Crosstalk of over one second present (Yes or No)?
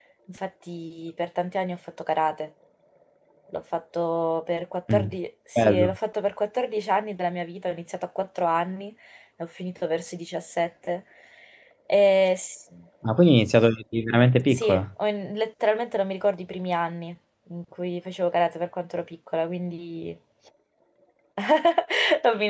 No